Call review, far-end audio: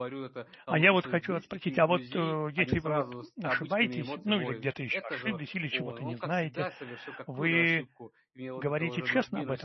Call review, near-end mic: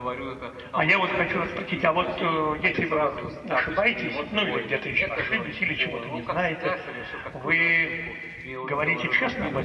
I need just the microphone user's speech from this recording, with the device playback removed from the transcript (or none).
none